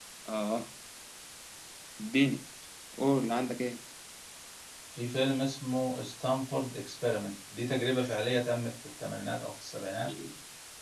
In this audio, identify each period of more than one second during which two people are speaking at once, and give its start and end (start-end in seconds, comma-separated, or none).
none